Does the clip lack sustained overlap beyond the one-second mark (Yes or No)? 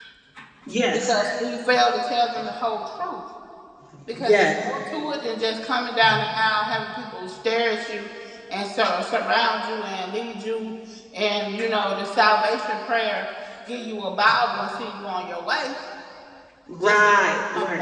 Yes